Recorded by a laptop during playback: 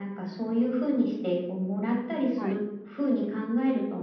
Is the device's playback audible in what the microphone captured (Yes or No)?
Yes